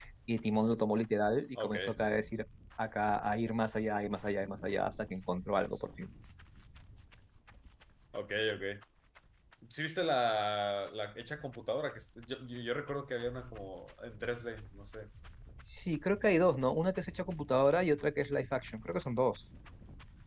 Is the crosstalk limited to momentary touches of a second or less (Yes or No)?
Yes